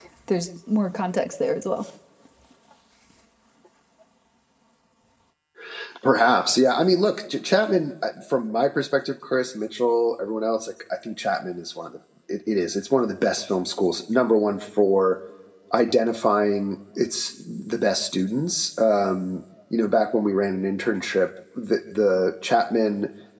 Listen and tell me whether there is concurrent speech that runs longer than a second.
No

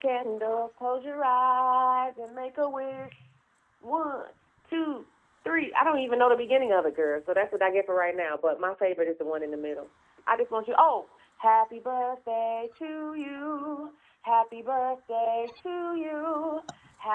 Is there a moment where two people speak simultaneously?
No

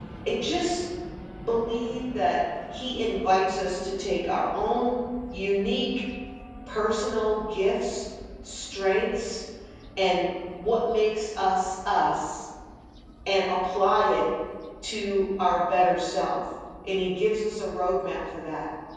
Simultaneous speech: No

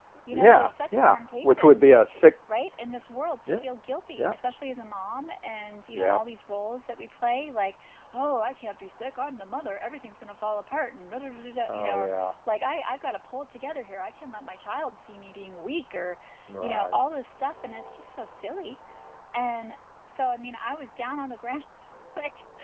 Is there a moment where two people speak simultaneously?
Yes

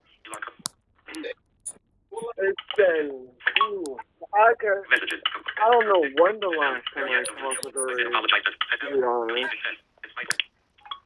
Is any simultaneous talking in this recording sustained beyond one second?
Yes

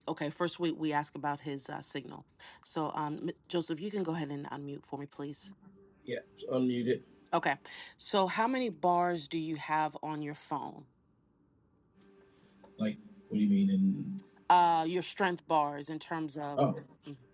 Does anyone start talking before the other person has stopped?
No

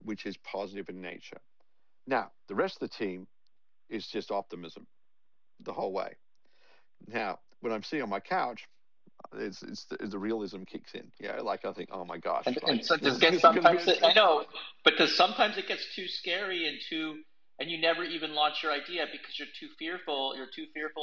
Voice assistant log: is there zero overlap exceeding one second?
No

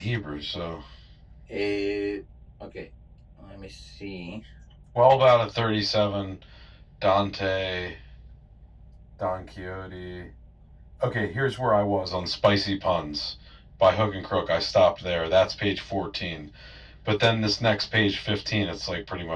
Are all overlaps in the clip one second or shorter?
Yes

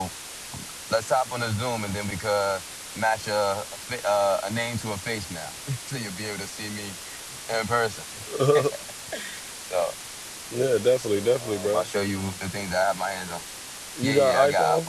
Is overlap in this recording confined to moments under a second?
No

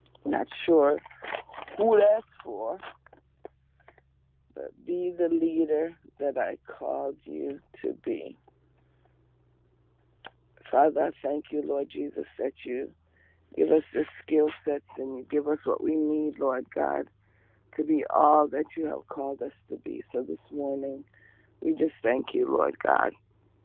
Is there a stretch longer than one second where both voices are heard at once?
No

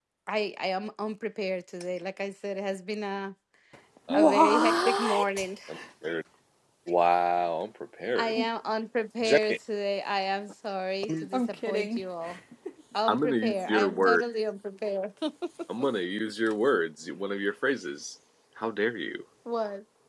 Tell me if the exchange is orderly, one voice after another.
No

